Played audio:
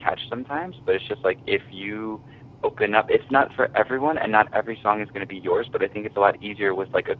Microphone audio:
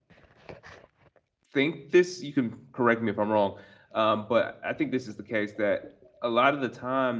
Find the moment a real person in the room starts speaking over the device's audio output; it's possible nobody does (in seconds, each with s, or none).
1.5 s